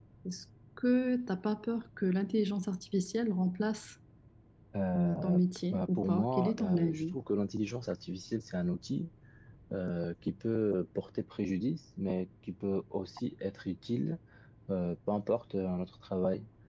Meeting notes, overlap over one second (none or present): present